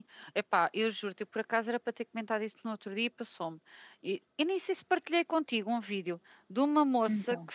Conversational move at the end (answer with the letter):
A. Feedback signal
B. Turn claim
A